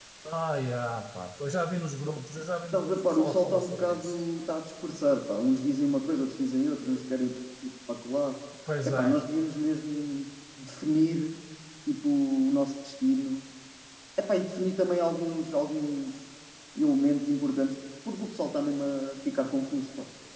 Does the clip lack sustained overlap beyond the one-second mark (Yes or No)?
No